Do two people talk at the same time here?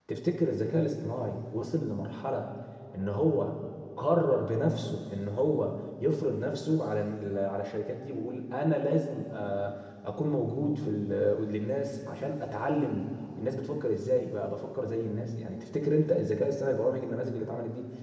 No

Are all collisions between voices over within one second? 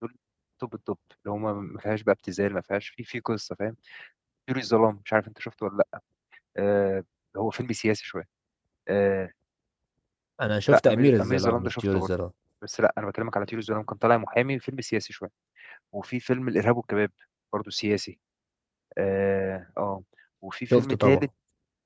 No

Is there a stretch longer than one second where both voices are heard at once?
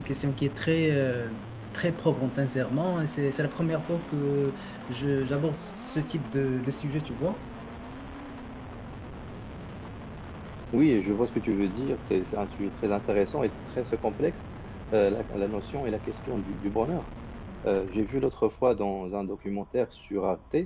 No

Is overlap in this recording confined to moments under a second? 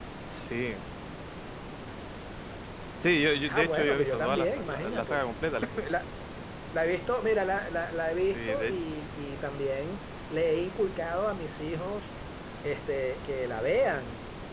No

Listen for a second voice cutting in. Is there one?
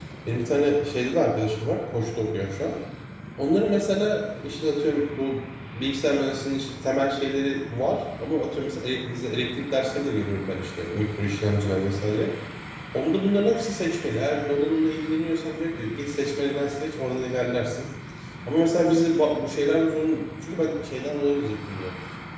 No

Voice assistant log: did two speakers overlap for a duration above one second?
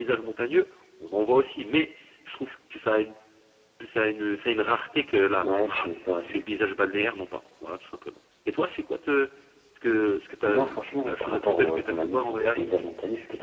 Yes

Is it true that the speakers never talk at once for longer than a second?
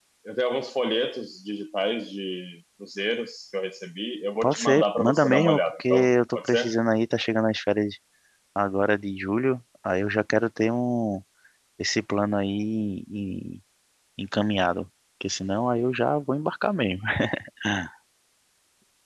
No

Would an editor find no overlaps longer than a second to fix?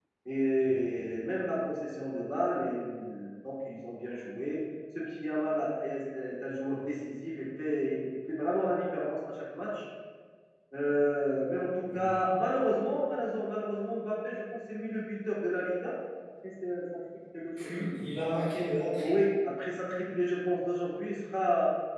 Yes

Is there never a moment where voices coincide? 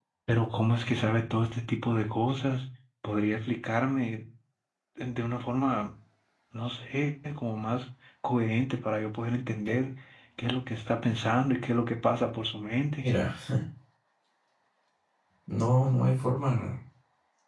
Yes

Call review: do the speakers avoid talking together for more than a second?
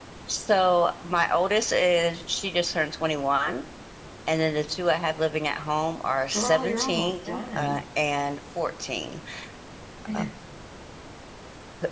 No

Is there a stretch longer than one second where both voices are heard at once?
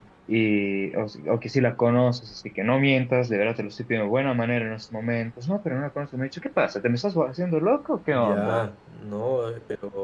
No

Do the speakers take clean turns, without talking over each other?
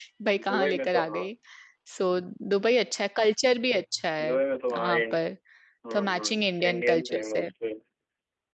No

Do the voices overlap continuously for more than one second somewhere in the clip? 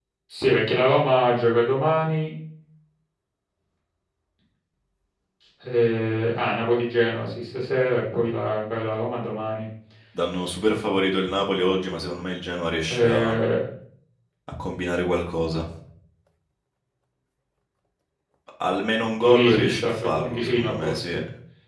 Yes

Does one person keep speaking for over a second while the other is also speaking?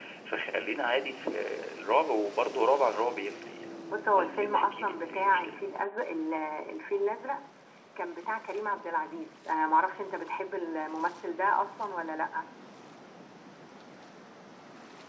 Yes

